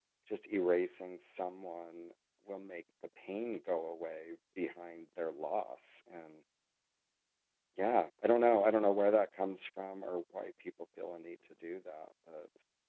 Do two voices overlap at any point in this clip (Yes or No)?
No